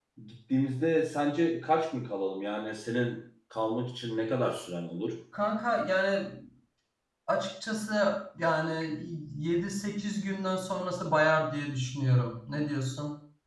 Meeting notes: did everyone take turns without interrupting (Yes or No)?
Yes